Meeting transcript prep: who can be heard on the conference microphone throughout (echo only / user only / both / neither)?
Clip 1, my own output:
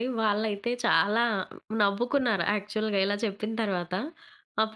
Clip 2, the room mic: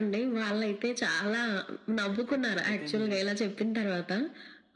both